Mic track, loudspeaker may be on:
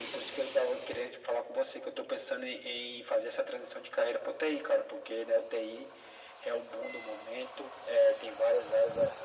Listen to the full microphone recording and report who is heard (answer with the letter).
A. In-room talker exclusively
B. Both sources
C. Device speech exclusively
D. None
C